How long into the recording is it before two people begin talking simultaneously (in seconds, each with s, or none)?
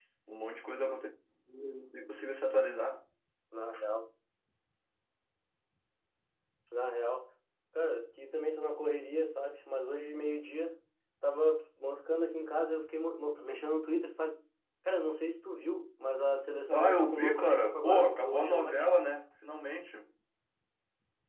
16.7 s